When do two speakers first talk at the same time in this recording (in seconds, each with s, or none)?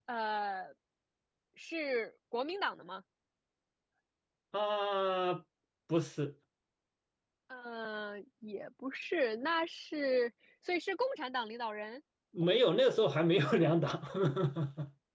none